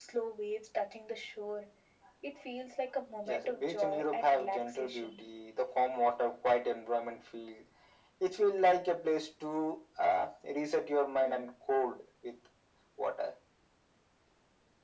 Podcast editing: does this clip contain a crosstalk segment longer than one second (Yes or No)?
Yes